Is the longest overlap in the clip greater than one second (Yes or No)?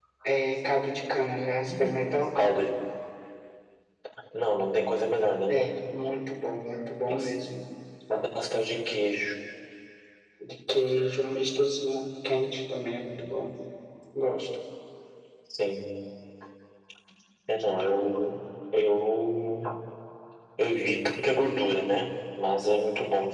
No